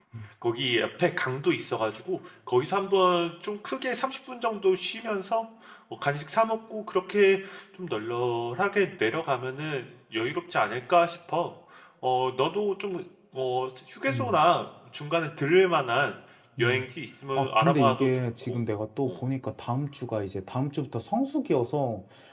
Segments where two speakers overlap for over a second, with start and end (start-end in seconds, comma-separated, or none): 17.4-18.6